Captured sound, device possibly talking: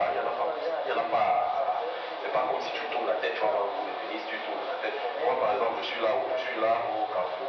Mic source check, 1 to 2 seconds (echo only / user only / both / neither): echo only